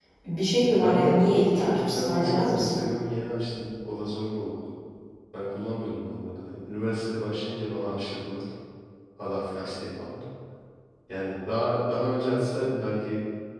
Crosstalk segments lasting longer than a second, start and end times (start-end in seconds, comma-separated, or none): 0.6-2.8